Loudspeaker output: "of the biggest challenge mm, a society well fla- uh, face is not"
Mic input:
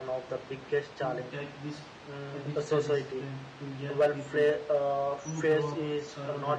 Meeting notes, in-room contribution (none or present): present